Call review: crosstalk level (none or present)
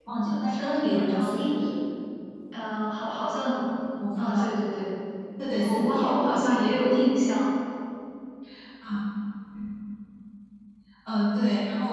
present